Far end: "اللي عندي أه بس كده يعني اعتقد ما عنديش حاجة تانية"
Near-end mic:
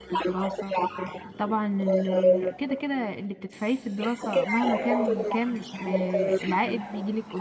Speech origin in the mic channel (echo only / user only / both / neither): both